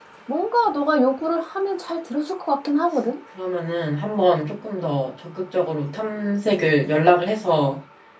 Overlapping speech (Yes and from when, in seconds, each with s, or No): No